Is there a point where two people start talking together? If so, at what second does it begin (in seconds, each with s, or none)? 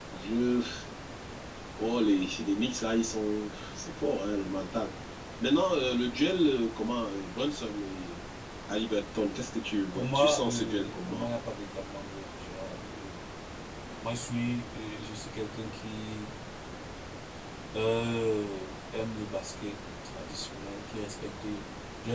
9.9 s